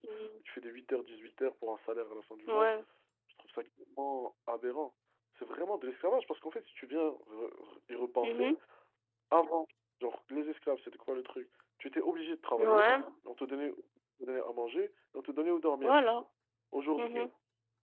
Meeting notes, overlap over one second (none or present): none